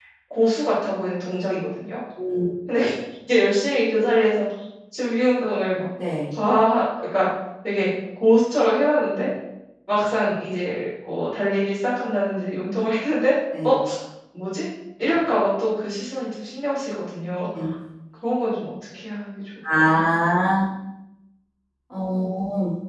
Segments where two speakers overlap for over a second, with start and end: none

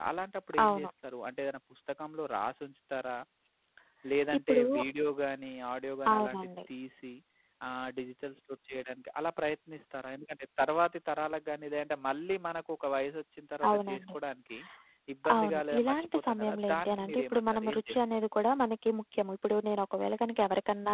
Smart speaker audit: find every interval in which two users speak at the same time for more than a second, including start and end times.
15.3-18.0

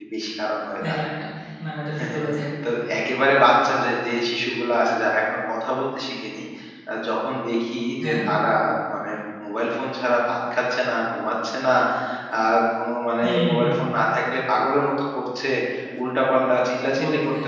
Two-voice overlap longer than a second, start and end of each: none

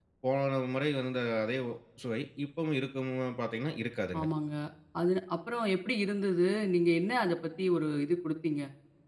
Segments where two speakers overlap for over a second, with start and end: none

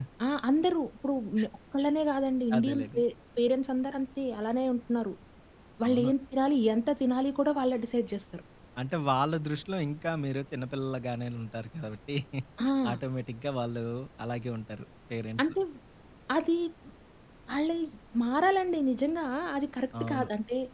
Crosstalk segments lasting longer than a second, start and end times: none

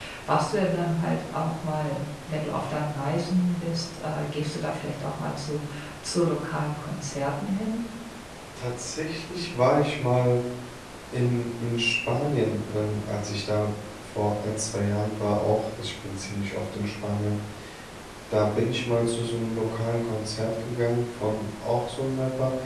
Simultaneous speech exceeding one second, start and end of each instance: none

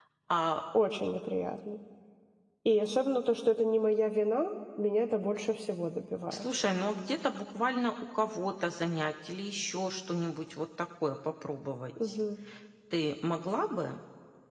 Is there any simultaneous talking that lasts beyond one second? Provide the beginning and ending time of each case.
none

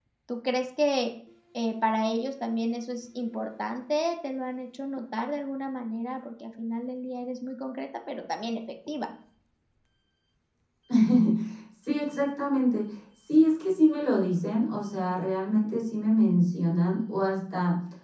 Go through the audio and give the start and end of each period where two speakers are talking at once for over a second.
none

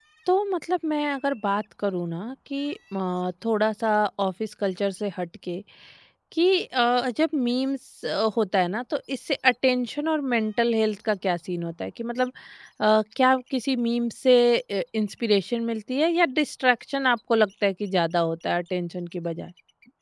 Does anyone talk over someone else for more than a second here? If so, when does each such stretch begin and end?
none

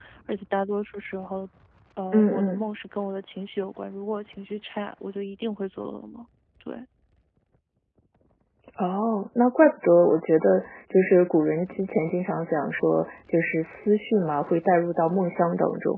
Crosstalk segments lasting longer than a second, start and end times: none

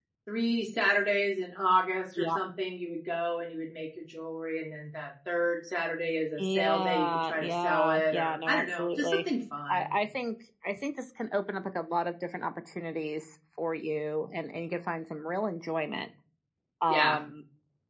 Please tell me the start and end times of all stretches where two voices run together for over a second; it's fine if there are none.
6.4-9.2

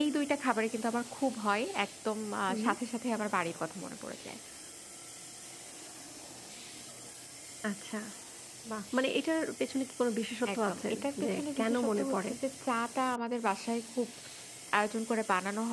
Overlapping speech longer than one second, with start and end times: 10.5-12.3

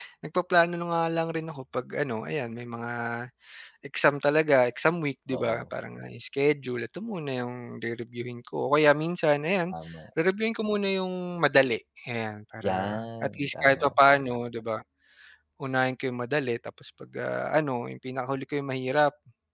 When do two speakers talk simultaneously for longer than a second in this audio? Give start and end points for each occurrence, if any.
12.6-14.3

